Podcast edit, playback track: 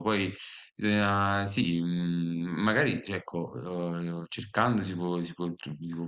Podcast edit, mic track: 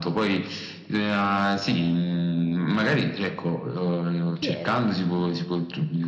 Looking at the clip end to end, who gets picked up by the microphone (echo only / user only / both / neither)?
both